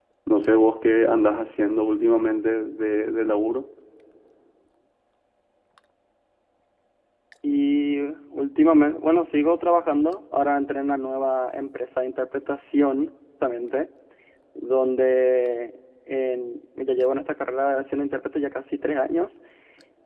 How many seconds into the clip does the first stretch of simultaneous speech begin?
none

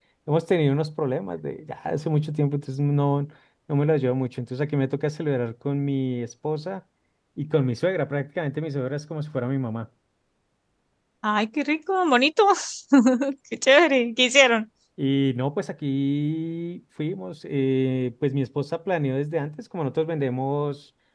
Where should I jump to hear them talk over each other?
none

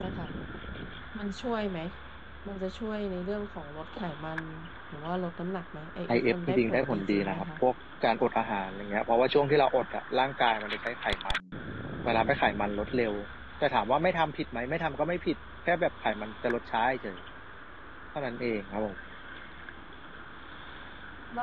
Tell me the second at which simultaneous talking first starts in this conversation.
6.1 s

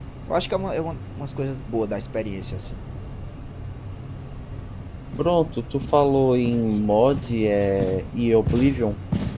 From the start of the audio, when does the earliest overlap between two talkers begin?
none

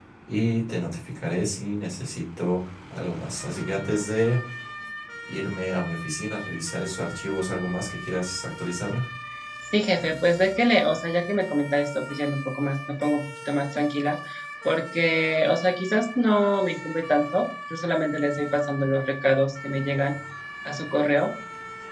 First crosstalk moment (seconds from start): none

